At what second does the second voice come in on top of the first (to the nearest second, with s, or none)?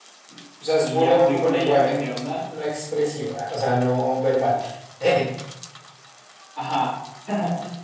1 s